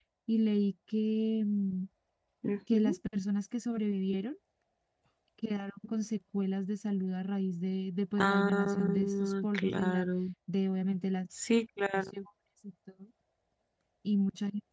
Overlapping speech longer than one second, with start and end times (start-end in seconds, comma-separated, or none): 8.2-10.1